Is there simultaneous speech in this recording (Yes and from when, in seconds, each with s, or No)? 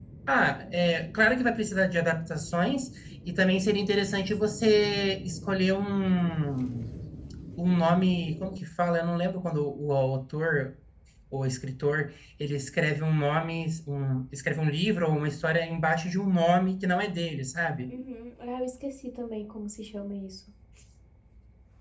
No